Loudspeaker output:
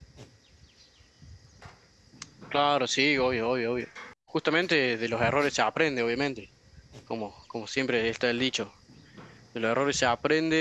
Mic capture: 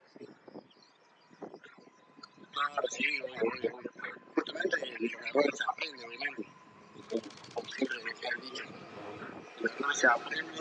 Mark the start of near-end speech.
none

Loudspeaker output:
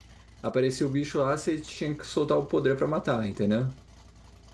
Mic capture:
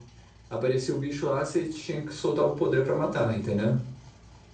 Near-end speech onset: none

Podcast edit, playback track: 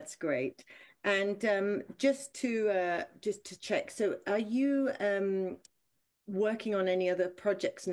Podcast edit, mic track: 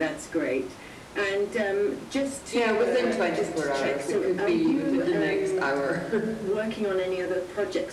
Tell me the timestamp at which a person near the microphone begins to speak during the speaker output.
2.5 s

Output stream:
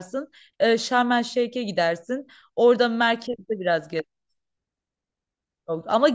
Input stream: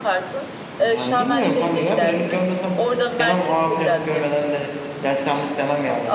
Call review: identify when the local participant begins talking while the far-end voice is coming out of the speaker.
0.8 s

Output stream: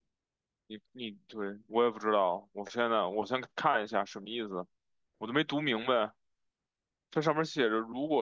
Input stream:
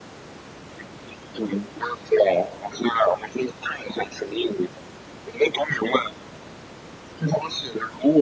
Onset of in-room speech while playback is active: none

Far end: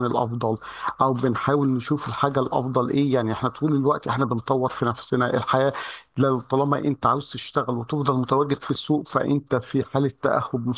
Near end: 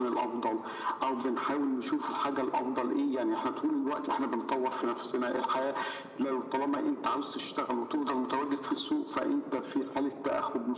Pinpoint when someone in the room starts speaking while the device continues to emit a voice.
none

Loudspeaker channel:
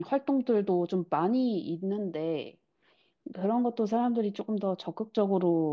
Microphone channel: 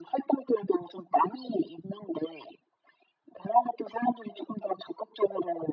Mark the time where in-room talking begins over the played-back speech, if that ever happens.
none

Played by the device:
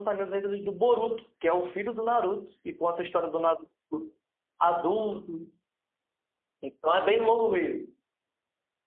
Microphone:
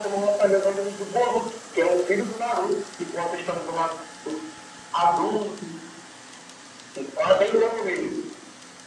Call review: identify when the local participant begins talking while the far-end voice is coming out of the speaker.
none

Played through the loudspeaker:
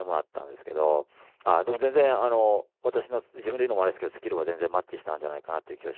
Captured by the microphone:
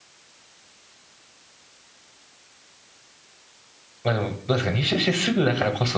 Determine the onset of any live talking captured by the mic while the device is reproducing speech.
4.0 s

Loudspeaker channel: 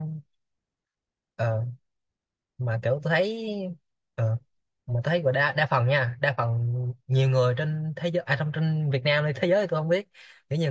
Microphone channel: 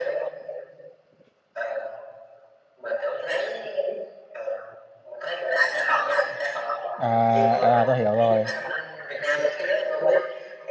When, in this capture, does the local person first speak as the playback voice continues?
7.0 s

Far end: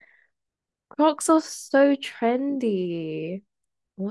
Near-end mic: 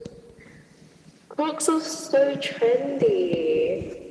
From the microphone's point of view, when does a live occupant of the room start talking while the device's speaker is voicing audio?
none

